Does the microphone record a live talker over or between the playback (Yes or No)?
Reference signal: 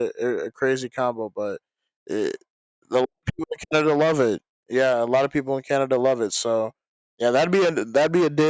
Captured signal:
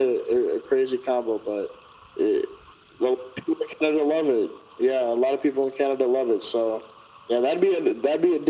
No